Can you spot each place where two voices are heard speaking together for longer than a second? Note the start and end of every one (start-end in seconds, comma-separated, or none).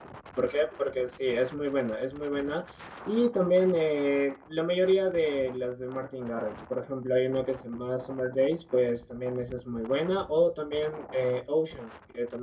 none